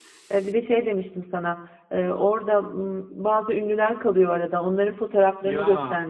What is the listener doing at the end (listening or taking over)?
listening